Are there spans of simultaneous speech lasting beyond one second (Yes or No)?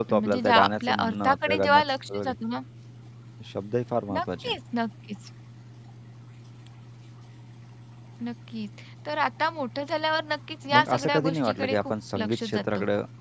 Yes